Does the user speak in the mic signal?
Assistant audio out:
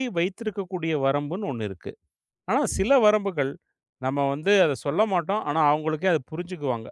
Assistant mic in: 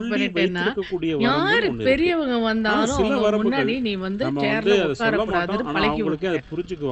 Yes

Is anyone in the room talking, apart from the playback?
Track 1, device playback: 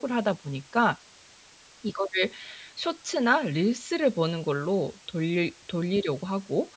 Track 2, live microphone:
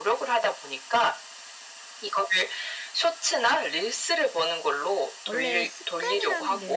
Yes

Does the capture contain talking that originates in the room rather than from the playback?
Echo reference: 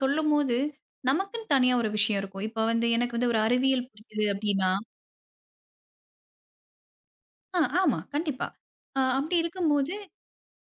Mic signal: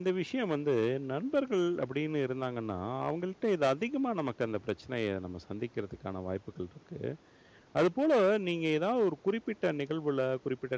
Yes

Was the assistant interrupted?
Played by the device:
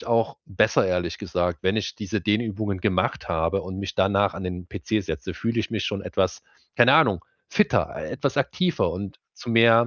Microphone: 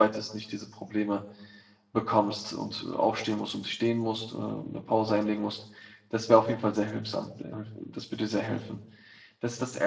Yes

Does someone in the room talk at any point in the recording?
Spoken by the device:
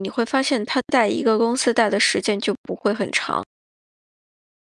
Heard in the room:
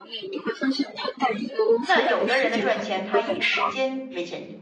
Yes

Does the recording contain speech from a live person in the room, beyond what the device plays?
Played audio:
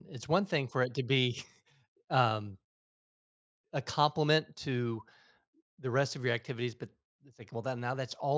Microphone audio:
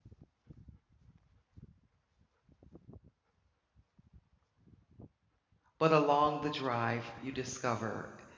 Yes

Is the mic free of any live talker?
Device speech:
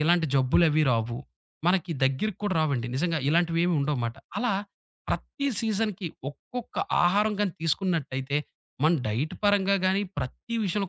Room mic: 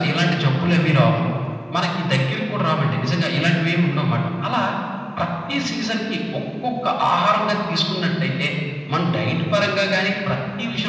Yes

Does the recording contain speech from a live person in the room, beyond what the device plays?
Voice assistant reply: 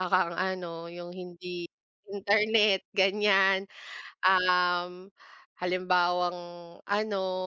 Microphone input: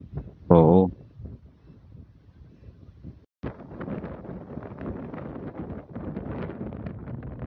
Yes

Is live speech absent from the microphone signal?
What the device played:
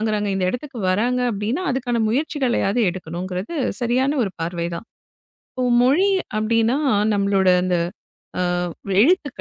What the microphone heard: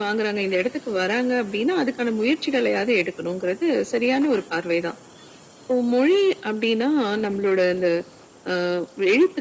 Yes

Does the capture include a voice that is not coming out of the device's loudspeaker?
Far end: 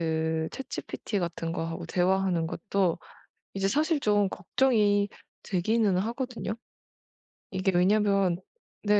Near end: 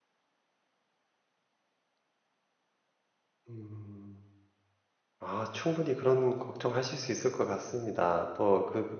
Yes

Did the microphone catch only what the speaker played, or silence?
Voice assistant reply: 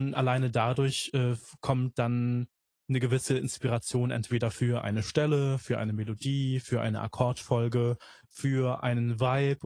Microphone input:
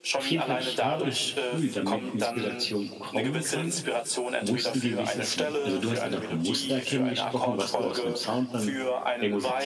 No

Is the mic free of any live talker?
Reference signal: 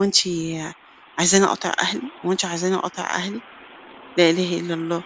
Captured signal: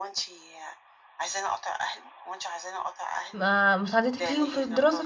No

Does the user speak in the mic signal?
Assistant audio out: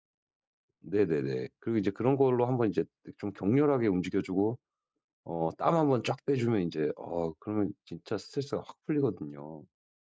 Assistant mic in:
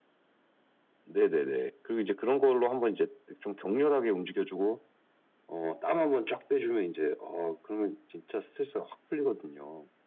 No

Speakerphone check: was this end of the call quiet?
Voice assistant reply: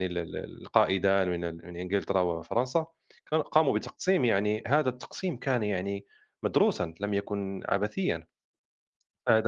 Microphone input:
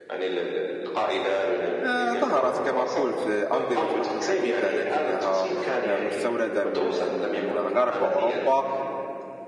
No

